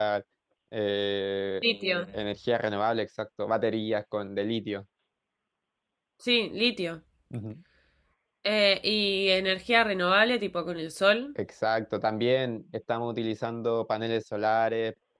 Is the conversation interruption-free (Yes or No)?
Yes